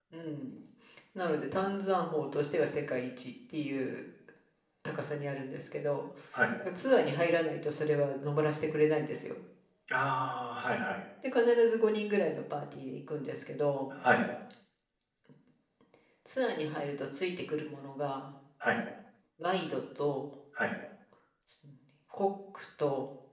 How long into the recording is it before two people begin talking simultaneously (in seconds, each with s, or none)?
none